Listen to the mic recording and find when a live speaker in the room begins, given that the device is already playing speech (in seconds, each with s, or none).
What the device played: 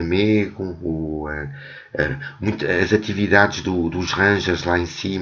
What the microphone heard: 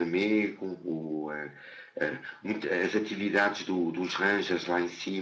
none